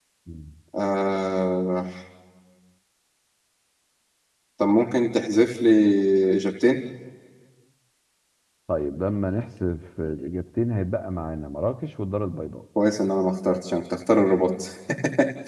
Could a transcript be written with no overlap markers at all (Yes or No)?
Yes